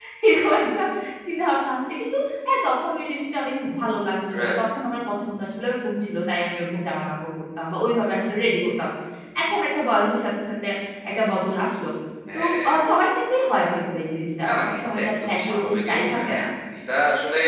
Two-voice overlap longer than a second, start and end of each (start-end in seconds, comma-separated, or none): 14.5-16.4